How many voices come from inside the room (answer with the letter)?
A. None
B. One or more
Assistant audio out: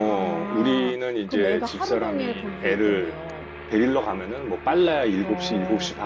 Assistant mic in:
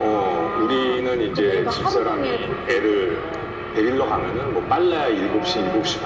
A